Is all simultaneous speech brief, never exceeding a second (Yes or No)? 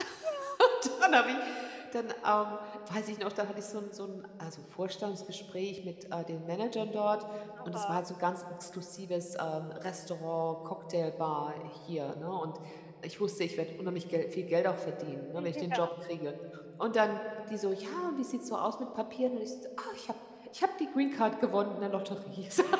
Yes